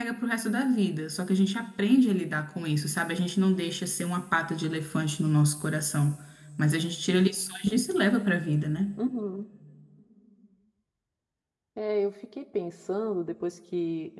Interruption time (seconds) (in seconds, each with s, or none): none